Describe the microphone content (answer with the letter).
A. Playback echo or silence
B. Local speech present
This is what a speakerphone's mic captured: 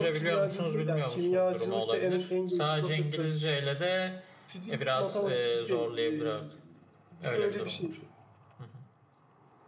B